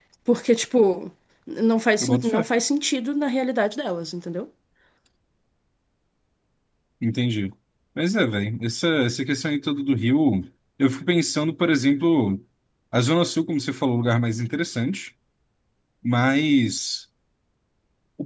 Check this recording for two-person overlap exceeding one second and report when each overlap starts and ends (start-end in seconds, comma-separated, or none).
none